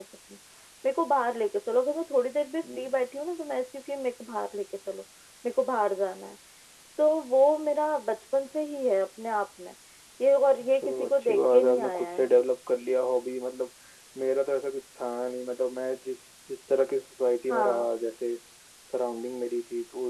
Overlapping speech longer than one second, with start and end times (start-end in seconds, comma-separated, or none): 10.8-12.3